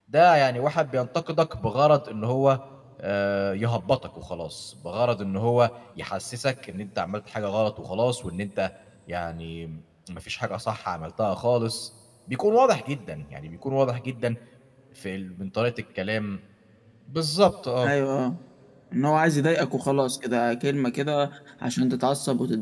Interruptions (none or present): none